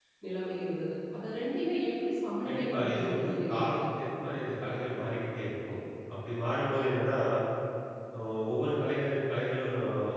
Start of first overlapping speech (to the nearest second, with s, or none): 2 s